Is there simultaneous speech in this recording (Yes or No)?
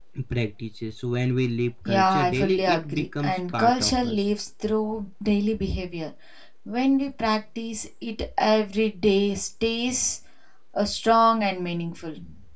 Yes